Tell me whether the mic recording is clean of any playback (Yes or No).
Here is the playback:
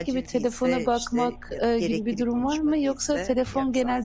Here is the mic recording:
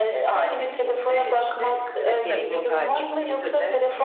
No